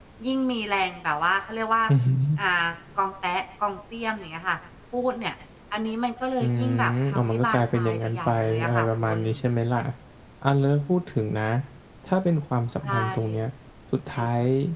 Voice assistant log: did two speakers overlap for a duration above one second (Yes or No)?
Yes